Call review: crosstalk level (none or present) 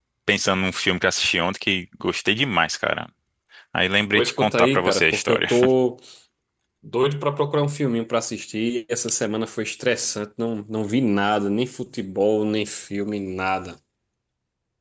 present